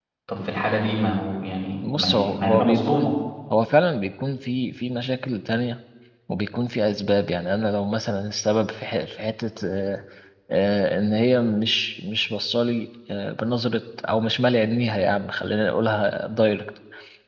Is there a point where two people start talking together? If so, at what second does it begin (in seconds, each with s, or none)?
1.8 s